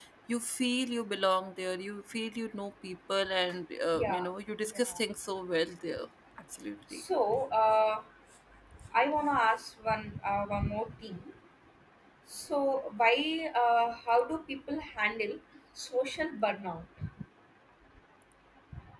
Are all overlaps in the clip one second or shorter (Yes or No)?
Yes